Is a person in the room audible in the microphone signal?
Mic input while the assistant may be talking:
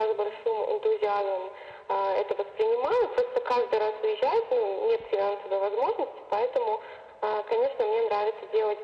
No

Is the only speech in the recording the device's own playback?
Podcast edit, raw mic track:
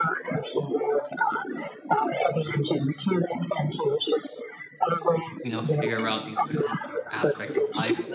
No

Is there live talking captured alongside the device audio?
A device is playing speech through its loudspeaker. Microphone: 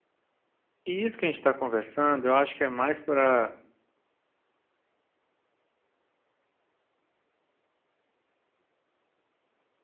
Yes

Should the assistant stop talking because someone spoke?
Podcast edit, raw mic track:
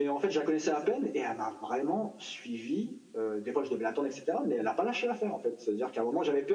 No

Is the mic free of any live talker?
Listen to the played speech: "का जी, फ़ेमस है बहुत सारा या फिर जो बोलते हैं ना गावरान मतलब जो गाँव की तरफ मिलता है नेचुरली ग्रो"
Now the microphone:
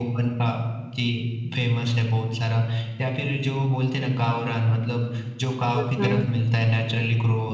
No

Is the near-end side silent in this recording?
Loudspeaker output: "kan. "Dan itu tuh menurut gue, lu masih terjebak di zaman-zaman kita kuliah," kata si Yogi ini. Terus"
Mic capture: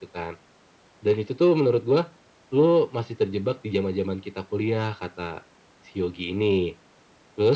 Yes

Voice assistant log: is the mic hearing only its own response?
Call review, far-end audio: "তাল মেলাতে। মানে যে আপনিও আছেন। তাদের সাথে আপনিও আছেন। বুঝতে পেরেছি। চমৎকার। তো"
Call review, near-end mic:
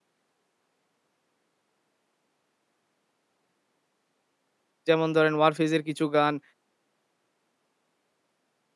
No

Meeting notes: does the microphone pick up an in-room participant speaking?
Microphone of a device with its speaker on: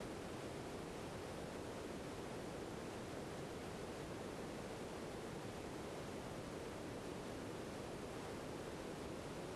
No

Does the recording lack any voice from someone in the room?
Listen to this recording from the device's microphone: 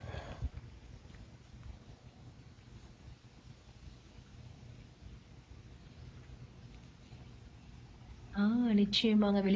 No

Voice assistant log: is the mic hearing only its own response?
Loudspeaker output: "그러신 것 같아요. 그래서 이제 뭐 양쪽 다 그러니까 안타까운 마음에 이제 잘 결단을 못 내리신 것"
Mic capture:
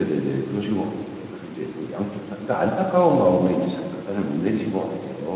Yes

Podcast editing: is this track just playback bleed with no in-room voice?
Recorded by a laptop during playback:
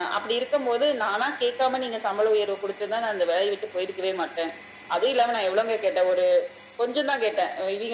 Yes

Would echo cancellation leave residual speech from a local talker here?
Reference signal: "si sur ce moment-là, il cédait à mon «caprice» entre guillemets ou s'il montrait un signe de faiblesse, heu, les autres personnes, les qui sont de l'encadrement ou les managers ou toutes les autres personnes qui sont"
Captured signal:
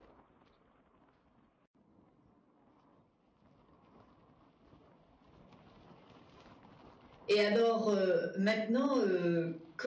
Yes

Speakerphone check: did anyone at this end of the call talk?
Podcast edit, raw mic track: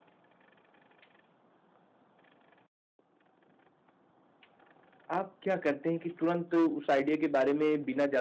Yes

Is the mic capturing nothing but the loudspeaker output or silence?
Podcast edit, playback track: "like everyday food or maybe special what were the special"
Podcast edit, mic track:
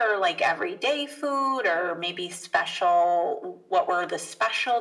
Yes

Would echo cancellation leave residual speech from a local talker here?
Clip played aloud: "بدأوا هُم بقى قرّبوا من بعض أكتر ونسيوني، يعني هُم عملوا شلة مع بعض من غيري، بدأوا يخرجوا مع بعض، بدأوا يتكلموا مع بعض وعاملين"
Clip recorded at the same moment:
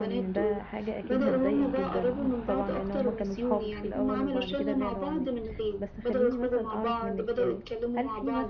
Yes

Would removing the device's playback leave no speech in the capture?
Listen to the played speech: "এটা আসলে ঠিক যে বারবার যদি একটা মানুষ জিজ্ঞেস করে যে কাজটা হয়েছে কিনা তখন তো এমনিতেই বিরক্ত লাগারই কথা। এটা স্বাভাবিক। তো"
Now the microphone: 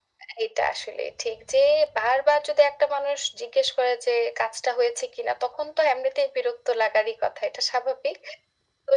Yes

